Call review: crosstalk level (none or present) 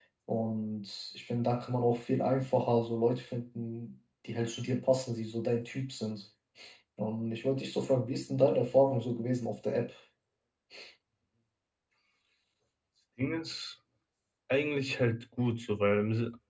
none